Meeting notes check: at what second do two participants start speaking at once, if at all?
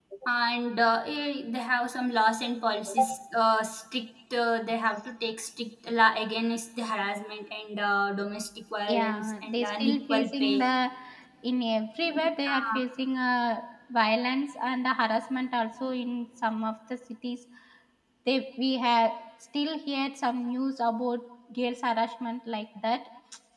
8.9 s

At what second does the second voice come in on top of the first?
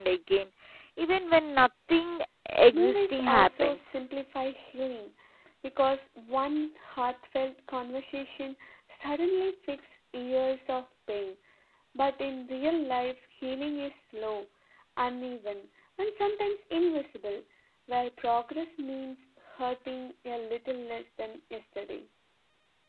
2.7 s

